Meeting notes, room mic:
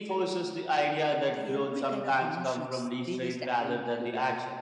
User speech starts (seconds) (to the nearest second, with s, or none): 1 s